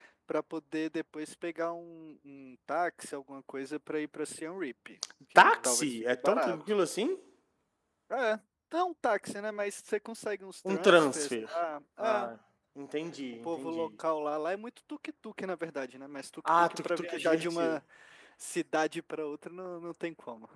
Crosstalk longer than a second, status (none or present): present